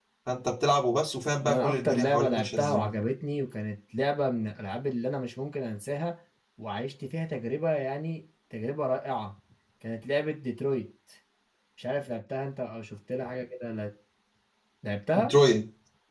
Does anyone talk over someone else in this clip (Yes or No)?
Yes